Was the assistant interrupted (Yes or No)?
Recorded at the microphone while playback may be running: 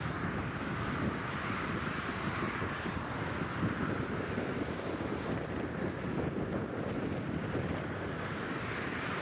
No